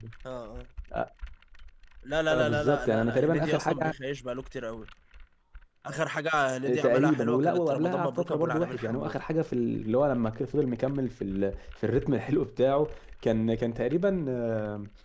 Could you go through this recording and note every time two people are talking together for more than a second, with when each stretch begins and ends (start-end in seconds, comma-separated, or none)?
2.3-3.9, 6.8-9.2